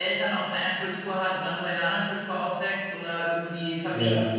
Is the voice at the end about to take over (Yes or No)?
No